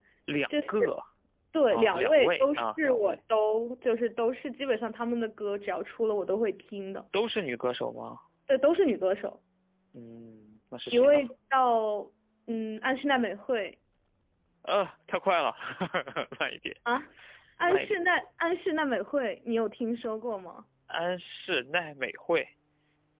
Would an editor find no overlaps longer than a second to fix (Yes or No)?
No